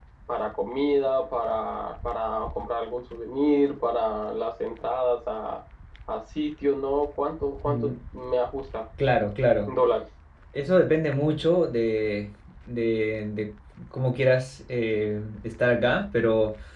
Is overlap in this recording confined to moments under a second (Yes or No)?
Yes